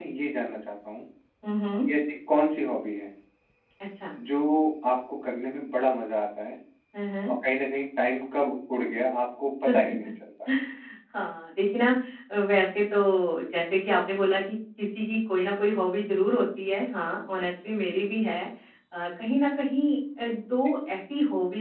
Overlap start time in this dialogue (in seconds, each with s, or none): none